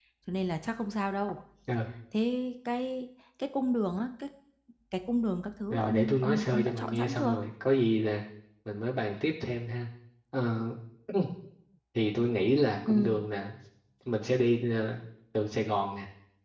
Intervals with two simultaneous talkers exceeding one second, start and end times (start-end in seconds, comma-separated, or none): 5.7-7.3